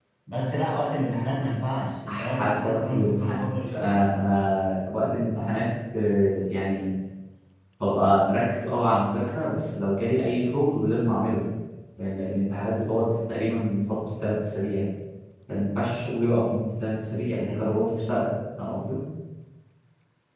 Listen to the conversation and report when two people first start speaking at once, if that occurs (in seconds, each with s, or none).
2.1 s